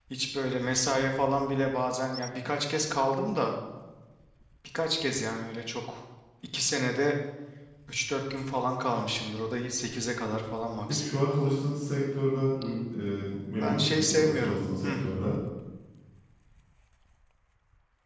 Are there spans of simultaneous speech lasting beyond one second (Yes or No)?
Yes